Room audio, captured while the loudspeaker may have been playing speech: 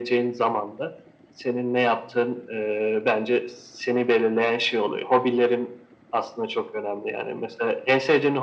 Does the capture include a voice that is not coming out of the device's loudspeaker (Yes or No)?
No